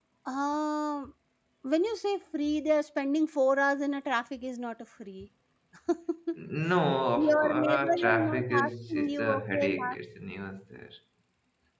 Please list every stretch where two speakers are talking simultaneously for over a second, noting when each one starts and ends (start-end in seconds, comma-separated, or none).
7.2-10.0